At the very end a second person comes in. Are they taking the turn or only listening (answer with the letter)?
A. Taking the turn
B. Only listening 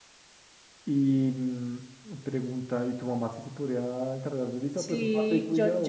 A